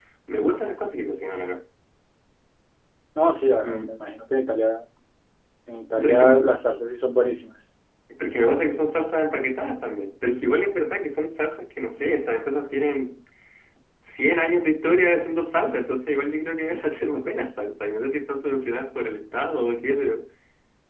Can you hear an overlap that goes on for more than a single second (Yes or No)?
No